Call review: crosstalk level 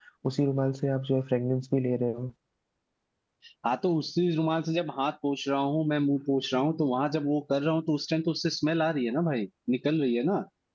none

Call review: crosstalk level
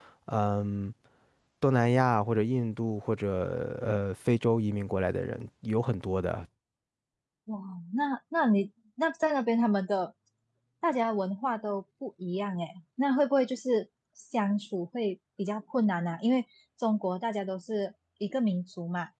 none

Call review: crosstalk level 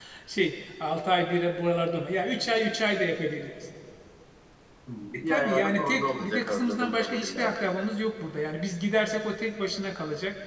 present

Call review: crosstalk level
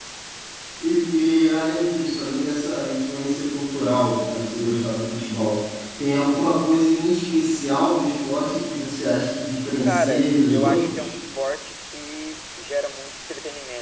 present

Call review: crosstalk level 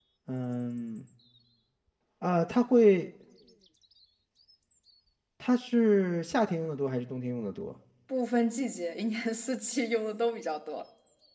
none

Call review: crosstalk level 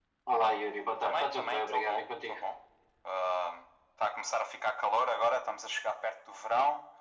present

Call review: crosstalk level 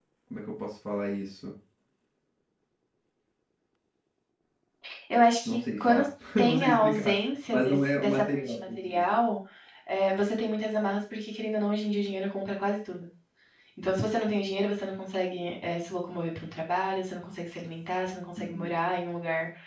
present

